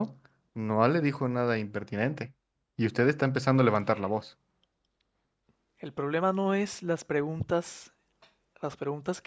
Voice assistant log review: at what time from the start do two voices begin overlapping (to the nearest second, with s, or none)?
none